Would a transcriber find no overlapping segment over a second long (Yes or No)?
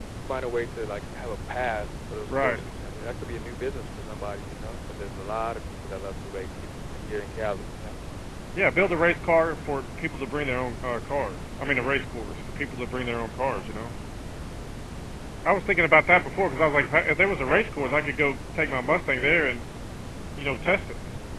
Yes